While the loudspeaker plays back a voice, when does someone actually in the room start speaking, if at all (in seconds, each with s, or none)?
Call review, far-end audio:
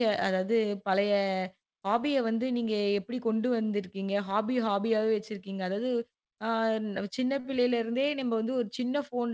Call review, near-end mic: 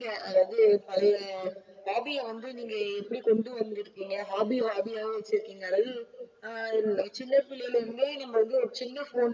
none